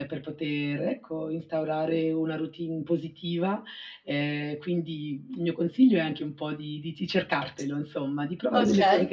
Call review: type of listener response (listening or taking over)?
listening